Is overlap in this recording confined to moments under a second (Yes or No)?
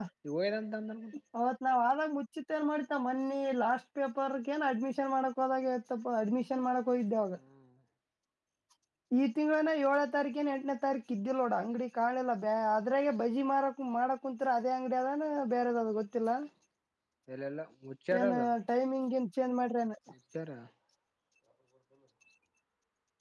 Yes